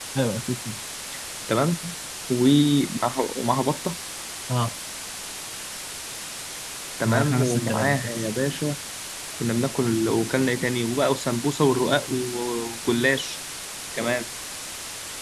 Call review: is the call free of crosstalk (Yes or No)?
No